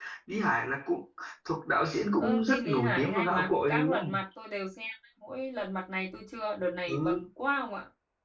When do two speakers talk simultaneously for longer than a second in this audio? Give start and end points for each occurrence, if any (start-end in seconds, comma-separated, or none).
2.2-4.2